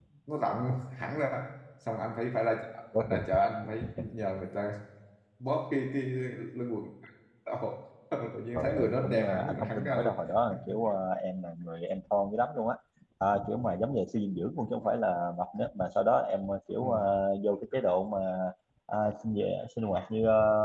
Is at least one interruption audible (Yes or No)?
Yes